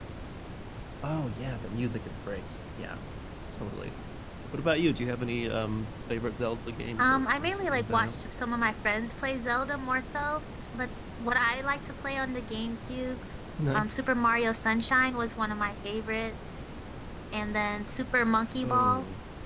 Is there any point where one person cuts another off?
Yes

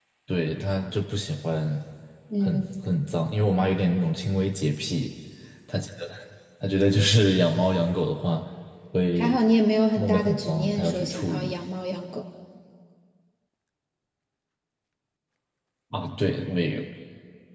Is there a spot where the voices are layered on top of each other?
Yes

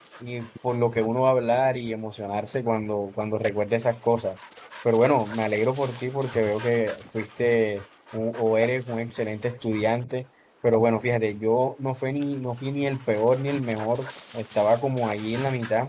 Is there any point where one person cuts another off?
No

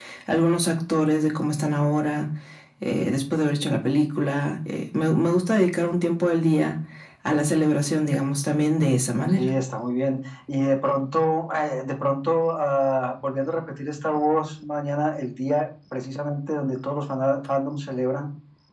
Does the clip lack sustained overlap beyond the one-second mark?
Yes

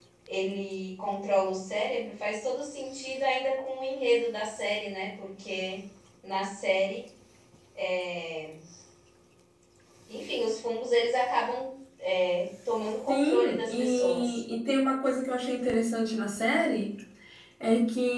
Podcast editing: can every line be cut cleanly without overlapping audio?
No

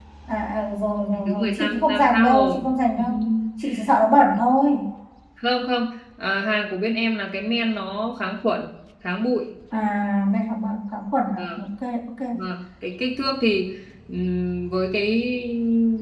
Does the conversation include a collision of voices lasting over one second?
Yes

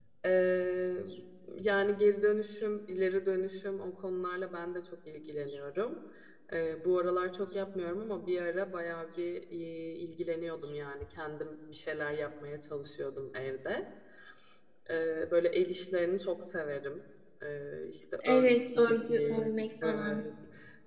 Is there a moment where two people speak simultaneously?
Yes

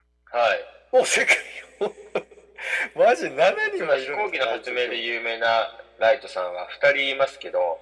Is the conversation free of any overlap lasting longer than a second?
No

